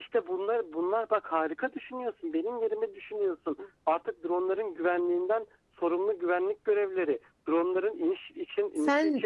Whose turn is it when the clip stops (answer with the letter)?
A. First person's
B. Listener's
A